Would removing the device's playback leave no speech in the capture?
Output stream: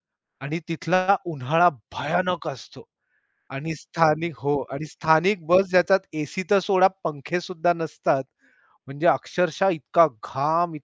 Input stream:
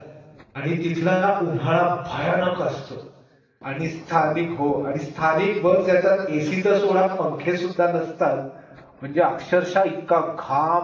Yes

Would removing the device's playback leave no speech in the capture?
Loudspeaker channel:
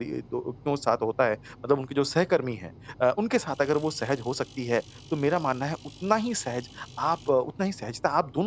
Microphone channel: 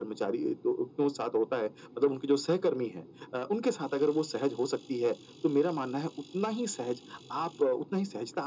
Yes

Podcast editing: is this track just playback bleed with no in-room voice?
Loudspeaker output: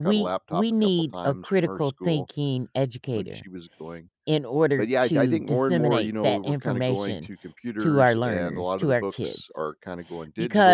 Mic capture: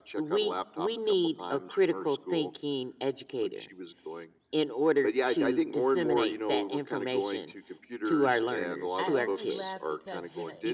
No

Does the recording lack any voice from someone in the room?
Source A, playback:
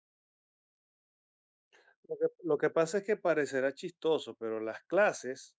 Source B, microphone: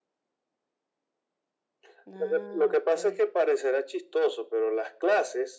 No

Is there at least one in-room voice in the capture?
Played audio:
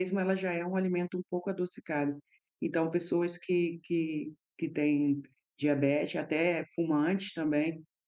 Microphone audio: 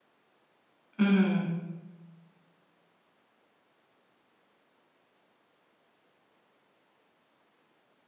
Yes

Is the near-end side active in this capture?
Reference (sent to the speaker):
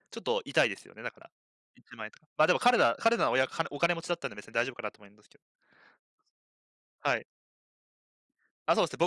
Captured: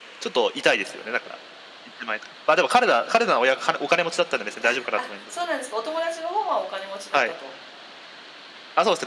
Yes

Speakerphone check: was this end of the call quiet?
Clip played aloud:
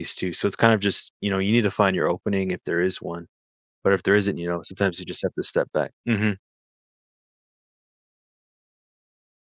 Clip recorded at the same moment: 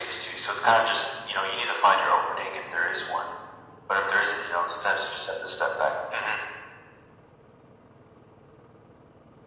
Yes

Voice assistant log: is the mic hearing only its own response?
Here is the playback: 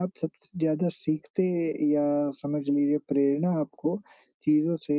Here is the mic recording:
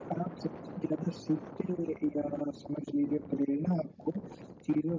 Yes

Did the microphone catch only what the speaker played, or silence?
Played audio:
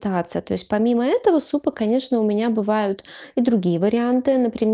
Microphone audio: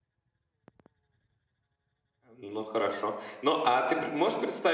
No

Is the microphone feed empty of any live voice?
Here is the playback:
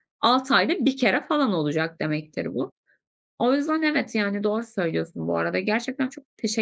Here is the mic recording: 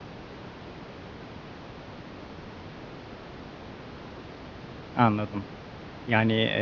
No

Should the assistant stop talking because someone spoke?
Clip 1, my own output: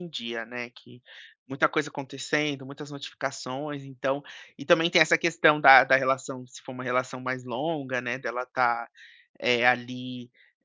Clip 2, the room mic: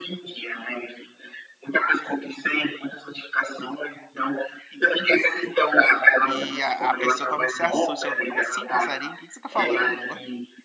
Yes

